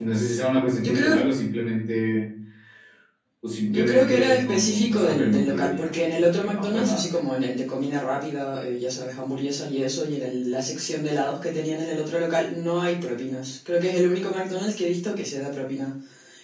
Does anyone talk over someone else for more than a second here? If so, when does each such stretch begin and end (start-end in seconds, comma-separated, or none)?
3.7-7.2